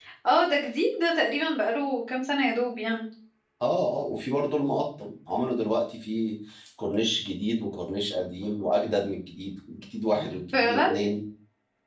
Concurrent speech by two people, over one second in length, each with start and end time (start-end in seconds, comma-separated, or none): none